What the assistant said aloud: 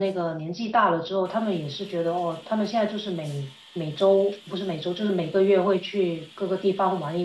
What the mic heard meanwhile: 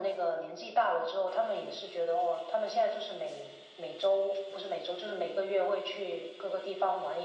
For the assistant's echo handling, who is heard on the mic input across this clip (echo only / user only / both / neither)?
echo only